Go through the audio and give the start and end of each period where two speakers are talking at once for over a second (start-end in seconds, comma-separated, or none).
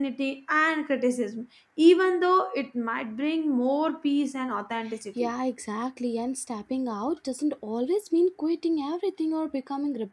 none